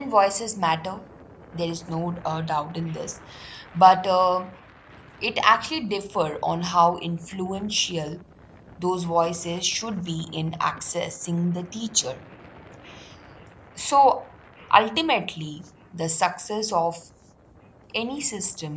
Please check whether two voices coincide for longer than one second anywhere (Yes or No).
No